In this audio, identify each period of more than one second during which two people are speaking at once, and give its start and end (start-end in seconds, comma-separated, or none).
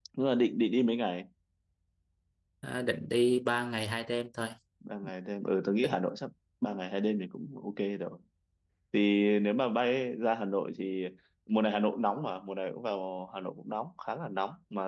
none